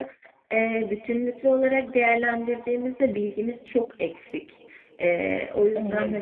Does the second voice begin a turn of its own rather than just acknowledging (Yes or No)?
Yes